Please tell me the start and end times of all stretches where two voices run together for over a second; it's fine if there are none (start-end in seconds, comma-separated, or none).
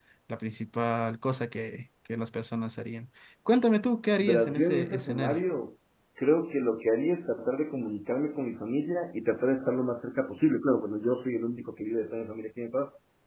4.2-5.4